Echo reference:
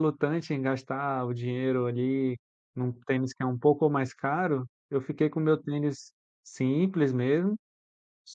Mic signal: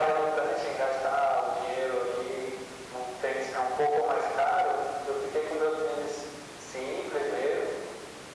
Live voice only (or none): none